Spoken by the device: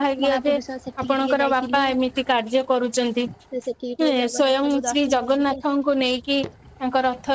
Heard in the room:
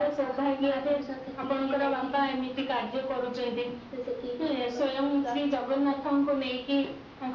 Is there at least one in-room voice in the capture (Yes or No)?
No